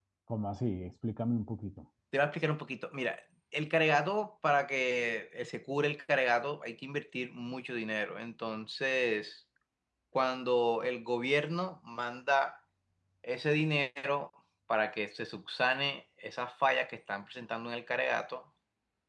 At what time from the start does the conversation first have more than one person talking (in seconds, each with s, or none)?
none